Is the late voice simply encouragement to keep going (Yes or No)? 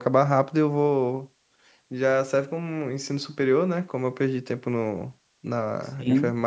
Yes